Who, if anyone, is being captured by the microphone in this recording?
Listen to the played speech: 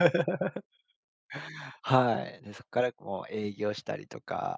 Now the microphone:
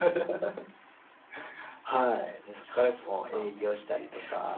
both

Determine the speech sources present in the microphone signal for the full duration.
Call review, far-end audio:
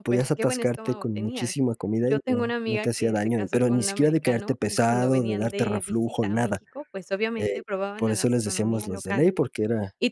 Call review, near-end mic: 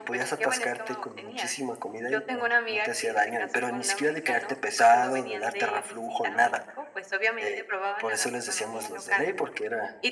echo only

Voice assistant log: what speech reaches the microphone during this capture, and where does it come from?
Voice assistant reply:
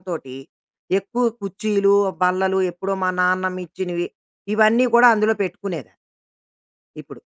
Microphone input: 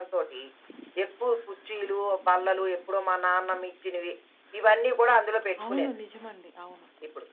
both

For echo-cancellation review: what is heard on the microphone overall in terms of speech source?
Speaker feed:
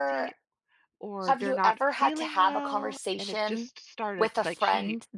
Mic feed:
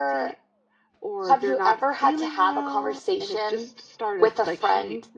echo only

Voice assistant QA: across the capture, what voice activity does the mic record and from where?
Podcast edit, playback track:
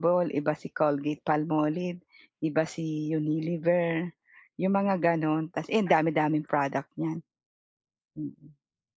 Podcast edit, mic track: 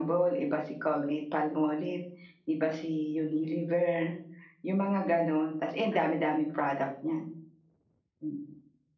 echo only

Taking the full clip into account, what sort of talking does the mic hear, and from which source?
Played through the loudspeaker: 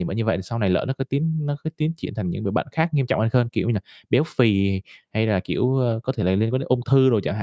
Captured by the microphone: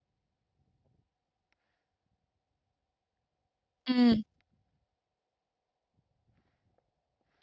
user only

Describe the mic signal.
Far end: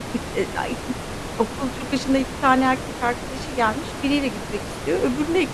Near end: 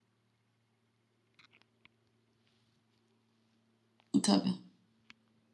user only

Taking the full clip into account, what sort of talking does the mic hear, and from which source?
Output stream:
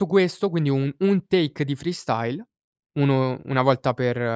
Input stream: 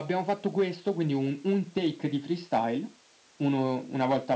echo only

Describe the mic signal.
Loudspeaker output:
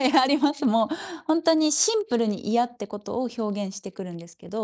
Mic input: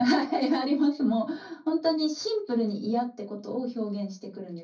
echo only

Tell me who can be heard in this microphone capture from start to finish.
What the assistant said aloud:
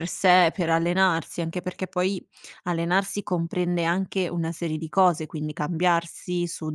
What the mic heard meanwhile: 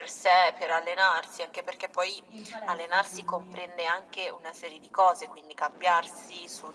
both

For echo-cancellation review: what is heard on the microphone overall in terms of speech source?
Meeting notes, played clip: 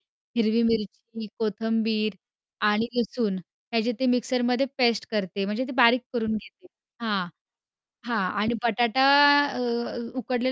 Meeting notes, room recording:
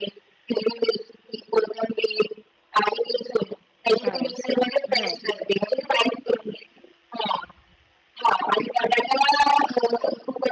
both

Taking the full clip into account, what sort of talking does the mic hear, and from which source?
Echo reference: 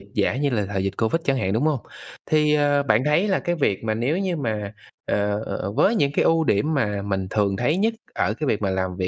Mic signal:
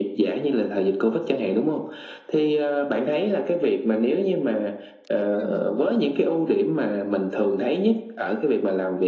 both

